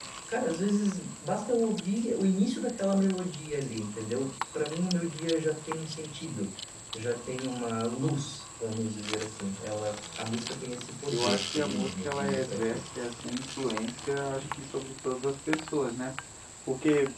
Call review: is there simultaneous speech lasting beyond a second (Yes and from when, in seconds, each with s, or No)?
Yes, from 11.1 s